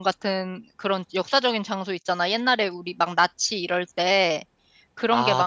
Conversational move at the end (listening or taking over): listening